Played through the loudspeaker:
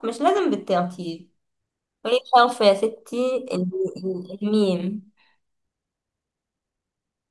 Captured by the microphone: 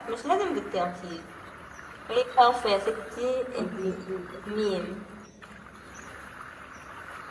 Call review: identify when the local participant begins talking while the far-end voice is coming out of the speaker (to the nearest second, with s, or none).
4 s